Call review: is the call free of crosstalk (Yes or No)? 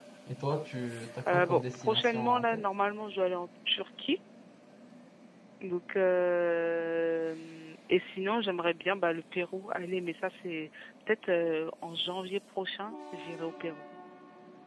No